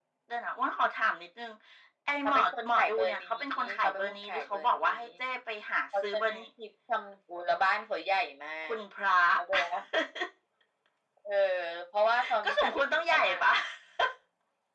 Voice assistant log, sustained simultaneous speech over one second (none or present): present